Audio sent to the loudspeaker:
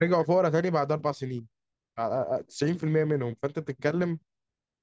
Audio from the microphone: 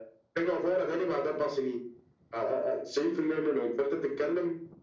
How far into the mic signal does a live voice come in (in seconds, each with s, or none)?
none